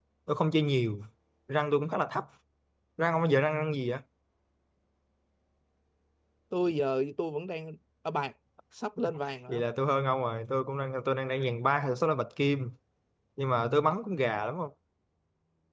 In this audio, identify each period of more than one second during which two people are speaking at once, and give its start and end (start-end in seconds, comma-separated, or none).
none